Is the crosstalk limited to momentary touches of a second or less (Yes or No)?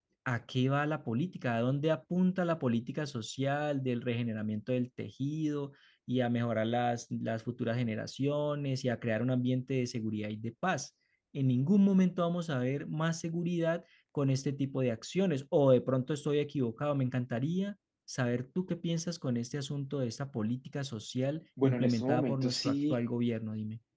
No